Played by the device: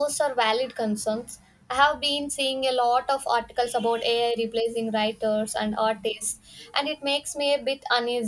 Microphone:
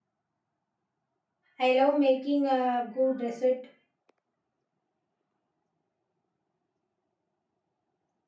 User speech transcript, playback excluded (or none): I love making a good risotto.